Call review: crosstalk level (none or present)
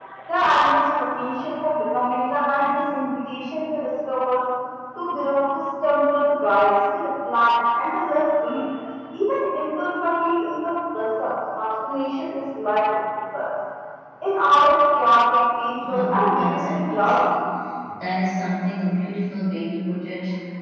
present